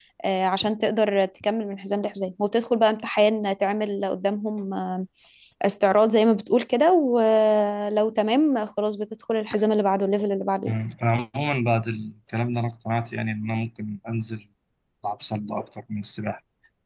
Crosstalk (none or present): none